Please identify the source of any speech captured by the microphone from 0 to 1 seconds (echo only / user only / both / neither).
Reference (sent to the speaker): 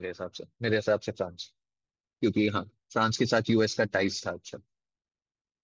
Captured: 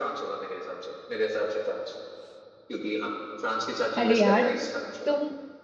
echo only